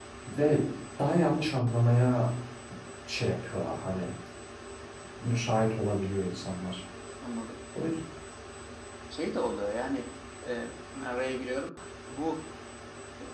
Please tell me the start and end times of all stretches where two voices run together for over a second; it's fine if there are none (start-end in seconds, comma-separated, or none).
none